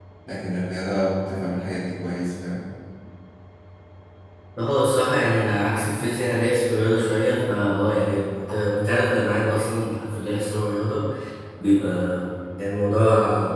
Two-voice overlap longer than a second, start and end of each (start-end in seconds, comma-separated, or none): none